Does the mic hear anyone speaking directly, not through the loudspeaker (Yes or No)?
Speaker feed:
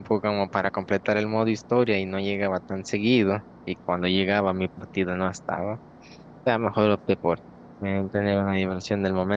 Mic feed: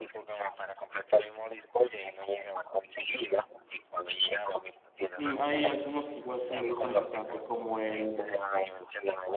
Yes